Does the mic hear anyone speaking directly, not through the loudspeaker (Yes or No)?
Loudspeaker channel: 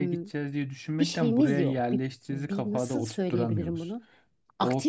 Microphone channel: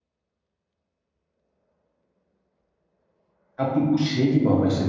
Yes